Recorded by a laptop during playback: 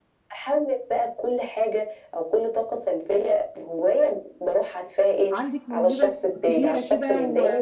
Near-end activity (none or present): present